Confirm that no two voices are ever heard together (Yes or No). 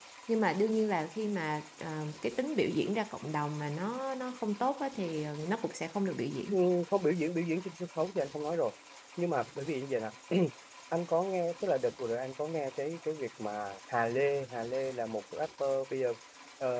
Yes